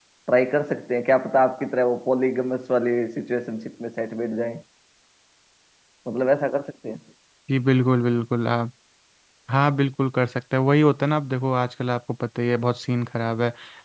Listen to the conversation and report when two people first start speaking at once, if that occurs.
none

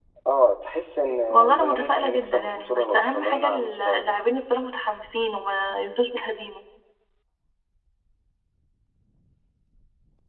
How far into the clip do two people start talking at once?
1.3 s

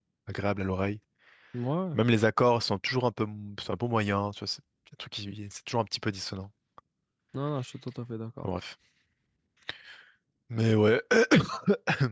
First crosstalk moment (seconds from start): none

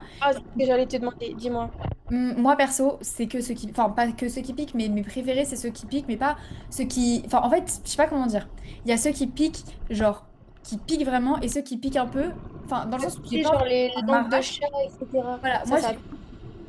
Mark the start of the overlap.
13.0 s

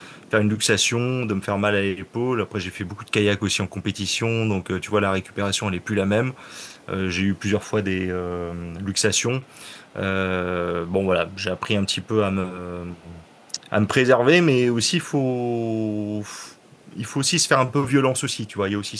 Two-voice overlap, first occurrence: none

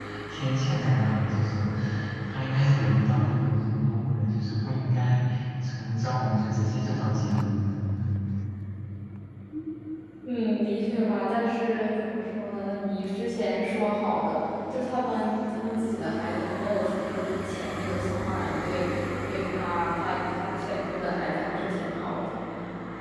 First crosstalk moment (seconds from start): none

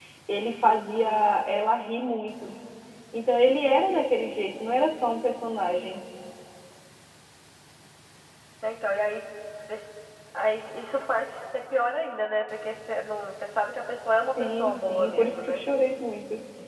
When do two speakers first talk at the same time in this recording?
14.2 s

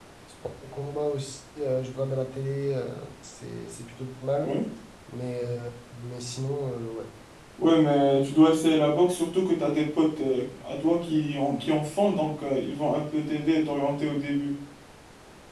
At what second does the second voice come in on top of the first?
none

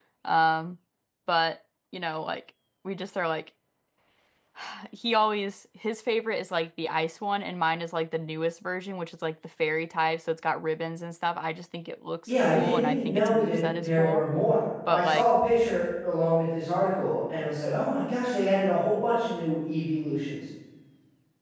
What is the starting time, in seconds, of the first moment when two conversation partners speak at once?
12.3 s

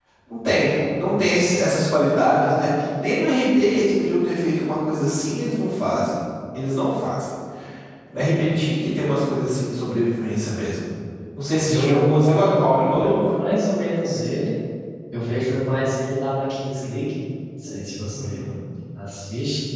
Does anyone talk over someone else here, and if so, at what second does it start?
11.7 s

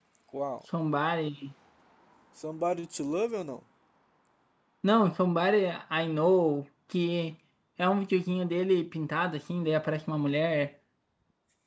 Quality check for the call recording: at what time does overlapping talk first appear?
none

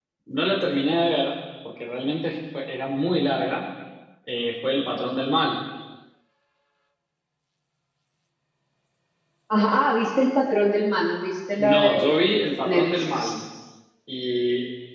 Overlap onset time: 11.6 s

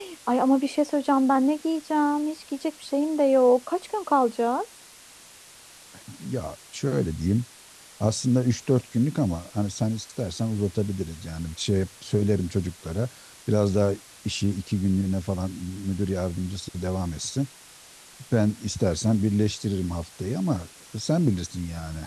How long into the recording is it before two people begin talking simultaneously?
none

